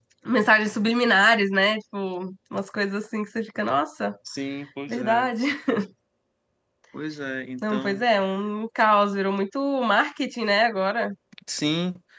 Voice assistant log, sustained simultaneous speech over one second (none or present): none